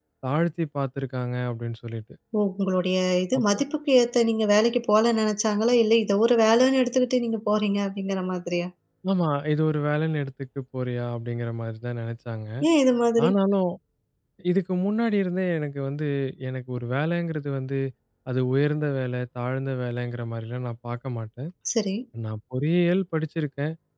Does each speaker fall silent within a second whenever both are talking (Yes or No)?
Yes